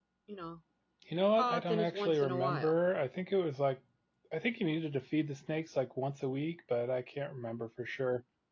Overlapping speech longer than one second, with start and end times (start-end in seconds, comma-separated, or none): 1.4-2.8